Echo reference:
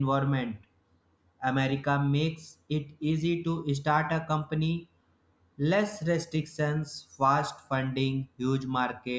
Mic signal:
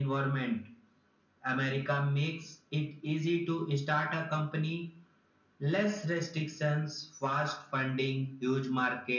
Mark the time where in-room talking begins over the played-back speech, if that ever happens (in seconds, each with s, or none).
none